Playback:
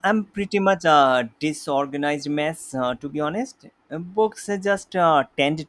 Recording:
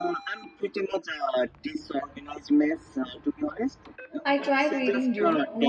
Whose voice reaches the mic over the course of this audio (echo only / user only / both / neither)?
both